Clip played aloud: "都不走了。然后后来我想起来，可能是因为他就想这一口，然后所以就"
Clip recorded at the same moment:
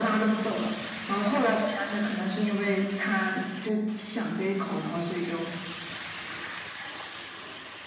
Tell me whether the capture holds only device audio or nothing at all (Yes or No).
Yes